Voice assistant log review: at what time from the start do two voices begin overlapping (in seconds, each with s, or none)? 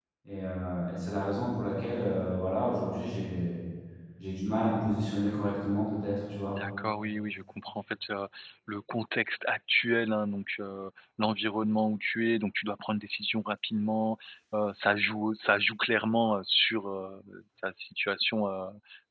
none